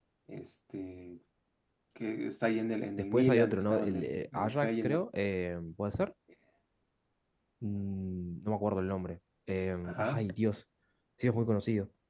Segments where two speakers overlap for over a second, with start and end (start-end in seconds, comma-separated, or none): 3.0-5.0